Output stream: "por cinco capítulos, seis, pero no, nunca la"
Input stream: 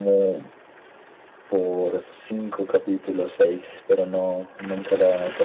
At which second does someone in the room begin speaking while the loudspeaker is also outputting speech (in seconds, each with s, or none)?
none